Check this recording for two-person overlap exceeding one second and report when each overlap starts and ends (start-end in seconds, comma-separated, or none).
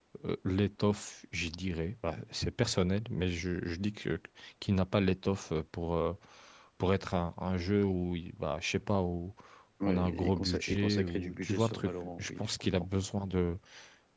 9.8-12.9